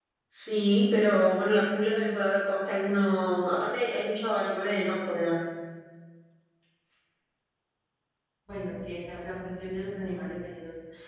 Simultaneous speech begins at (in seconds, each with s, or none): none